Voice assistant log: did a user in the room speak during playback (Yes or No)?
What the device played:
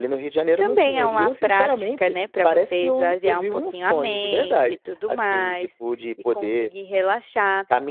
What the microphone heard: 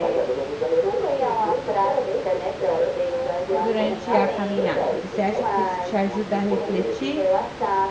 Yes